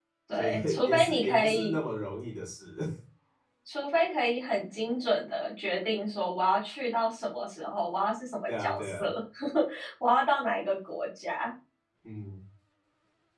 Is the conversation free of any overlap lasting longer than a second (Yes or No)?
No